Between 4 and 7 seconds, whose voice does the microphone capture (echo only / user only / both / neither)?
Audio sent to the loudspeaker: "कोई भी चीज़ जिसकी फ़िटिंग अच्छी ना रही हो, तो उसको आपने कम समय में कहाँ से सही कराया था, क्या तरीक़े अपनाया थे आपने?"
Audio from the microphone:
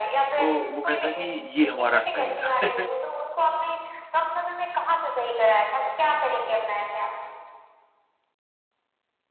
echo only